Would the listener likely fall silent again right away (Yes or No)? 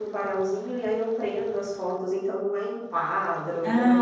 No